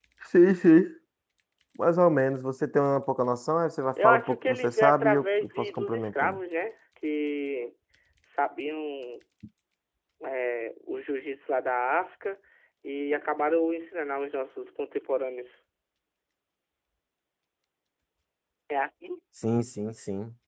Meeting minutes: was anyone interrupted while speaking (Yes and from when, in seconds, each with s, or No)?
Yes, from 4.0 s